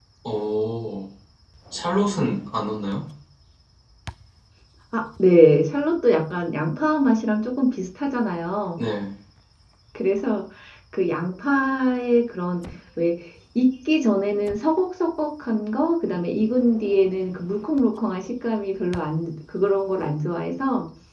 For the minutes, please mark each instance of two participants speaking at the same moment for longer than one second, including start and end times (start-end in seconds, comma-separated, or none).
none